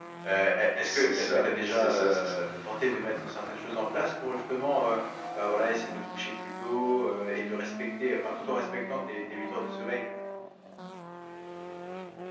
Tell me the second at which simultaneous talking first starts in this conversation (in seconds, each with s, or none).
0.8 s